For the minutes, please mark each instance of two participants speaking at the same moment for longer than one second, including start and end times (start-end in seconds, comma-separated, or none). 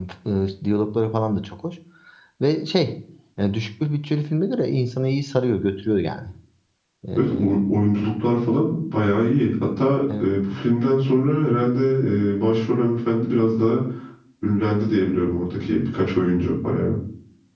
none